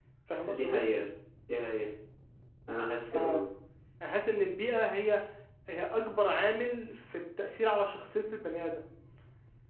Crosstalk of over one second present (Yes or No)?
No